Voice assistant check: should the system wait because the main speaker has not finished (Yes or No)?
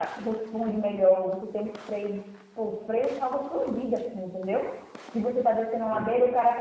Yes